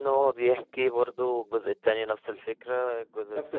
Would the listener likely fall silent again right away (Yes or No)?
Yes